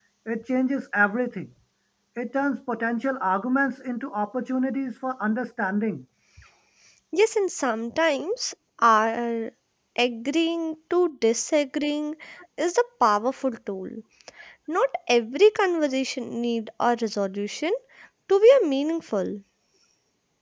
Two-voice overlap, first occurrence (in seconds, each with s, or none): none